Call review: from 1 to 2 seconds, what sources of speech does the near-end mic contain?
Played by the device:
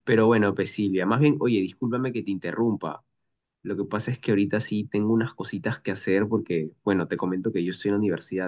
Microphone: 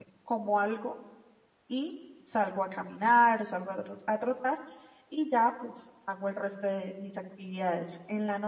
user only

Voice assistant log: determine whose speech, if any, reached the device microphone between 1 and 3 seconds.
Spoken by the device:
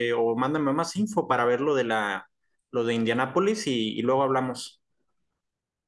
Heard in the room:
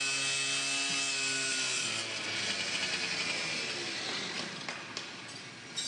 neither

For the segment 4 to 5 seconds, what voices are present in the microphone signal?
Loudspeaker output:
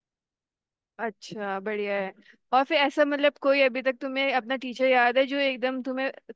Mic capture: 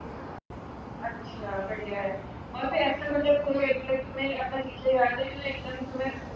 echo only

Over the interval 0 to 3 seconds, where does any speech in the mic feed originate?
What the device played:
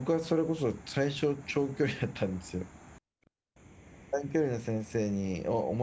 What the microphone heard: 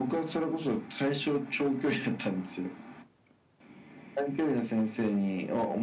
echo only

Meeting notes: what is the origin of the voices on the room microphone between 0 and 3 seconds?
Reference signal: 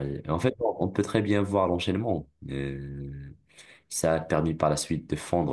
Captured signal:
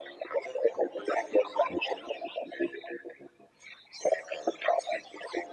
echo only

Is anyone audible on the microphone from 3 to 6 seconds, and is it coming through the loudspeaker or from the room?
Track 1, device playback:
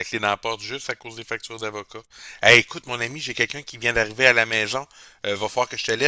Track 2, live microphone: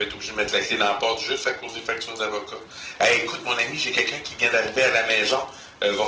echo only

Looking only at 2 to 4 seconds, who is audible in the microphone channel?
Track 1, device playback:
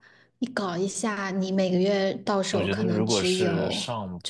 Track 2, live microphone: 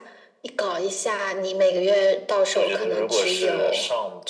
echo only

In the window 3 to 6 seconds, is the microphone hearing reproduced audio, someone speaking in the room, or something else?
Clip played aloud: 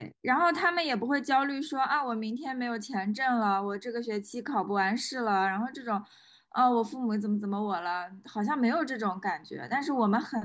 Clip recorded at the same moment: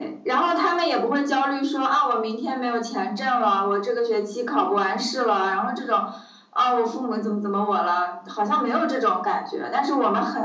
echo only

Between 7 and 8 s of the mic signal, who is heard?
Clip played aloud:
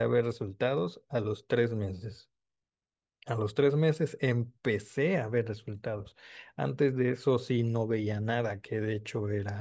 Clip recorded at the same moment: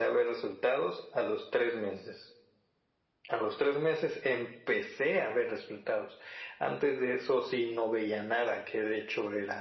echo only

